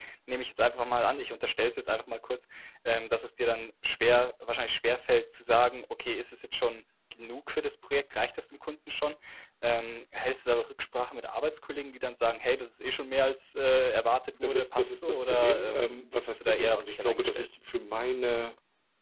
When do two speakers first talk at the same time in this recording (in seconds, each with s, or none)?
14.3 s